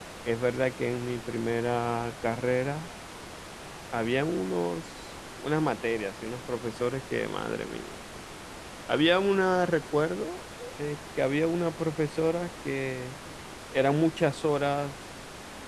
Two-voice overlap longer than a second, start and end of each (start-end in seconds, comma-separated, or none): none